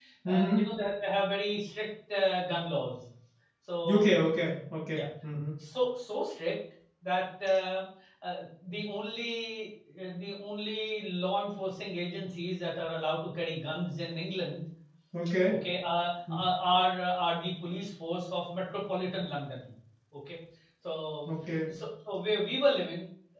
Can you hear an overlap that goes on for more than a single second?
No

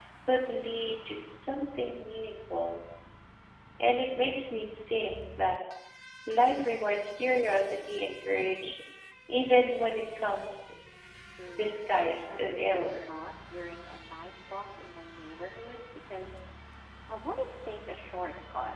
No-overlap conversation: No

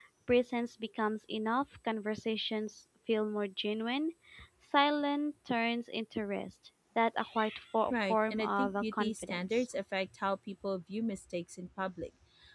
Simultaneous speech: Yes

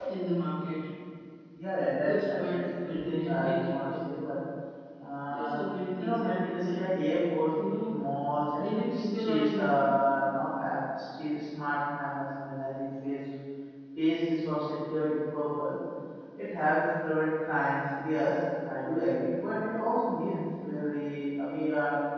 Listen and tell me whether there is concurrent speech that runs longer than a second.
Yes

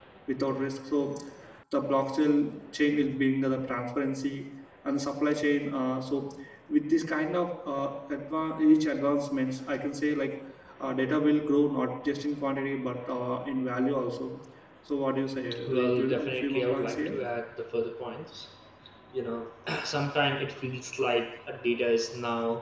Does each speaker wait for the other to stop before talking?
No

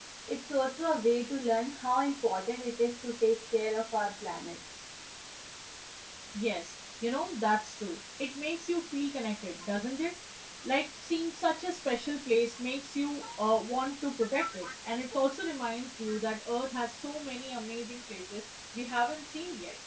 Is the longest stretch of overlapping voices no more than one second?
Yes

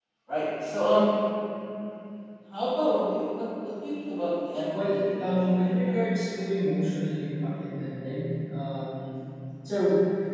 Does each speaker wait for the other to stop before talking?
No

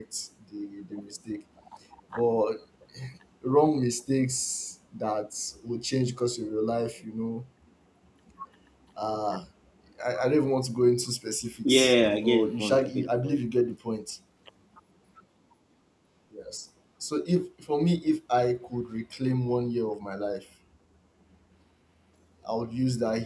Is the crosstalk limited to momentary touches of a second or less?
No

